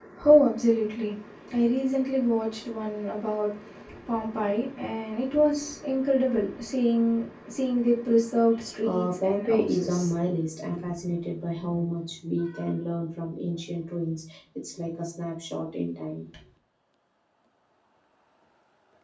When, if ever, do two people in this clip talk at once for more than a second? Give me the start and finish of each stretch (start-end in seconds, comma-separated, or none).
8.8-10.1